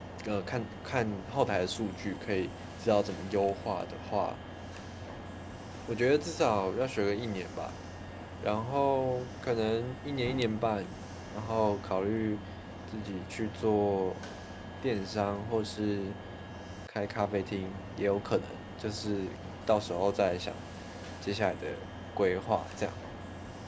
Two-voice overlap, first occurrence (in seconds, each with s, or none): none